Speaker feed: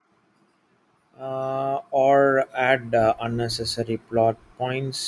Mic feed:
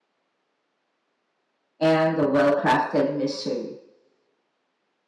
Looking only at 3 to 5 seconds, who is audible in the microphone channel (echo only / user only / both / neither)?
user only